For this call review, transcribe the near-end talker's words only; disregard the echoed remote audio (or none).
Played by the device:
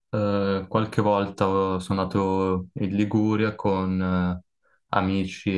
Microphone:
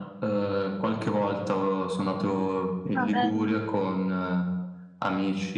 Ah, bello,